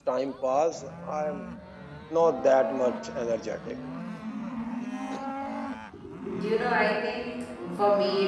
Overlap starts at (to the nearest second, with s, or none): none